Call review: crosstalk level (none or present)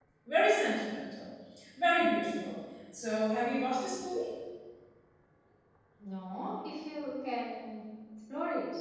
none